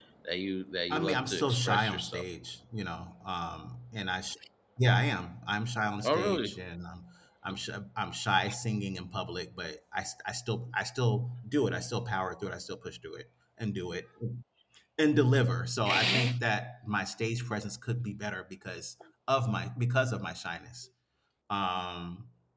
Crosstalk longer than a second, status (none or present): present